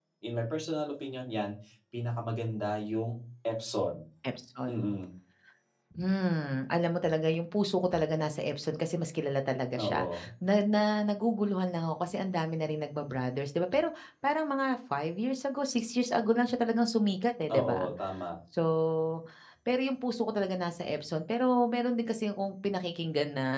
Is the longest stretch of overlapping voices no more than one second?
Yes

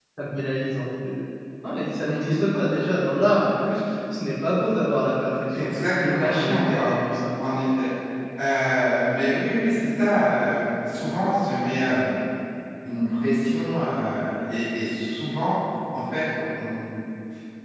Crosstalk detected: Yes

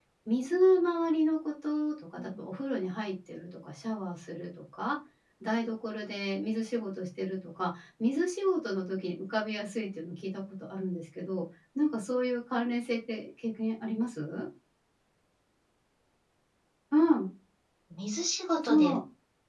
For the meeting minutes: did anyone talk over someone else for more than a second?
No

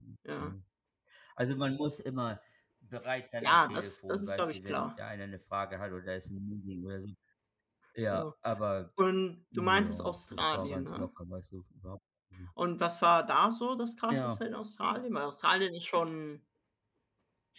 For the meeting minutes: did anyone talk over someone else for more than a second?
Yes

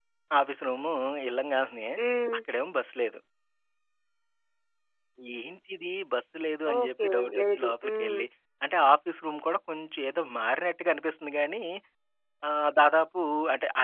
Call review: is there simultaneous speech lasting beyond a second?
Yes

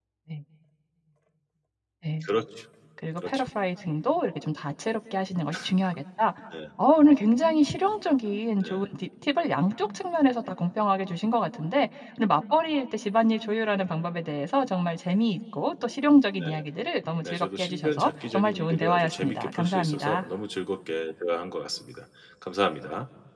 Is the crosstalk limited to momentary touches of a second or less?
No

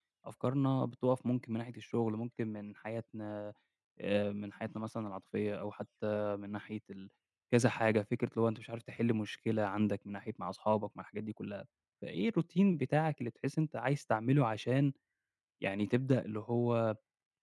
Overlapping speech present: No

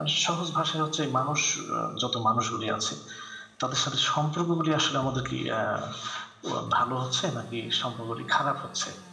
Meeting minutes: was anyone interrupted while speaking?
No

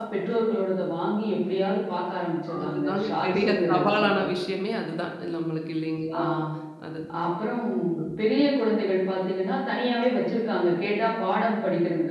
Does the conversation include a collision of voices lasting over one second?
Yes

